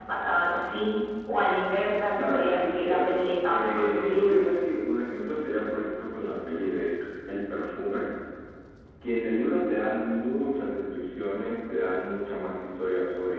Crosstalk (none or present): present